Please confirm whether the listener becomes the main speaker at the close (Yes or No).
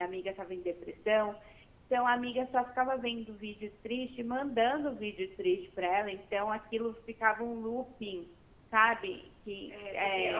Yes